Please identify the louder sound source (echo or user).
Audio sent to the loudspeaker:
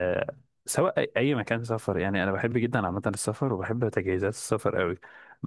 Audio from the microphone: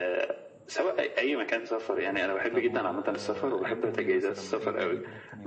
echo